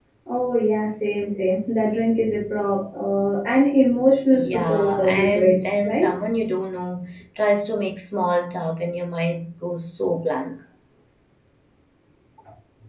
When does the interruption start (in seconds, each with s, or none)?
4.3 s